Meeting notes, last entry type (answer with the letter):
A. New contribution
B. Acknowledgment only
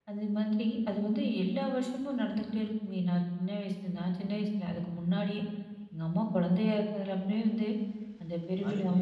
A